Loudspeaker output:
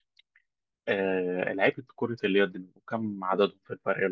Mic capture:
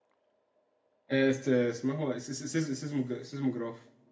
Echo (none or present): none